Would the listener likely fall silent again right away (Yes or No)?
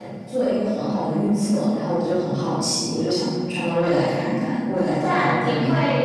No